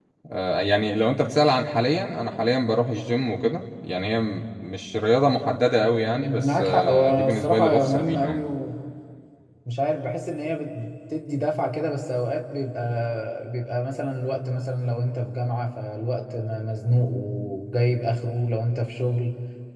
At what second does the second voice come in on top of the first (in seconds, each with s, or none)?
6.1 s